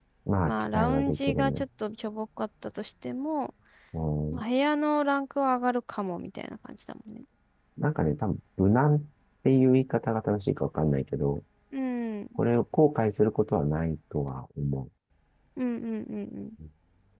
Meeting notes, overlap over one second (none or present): present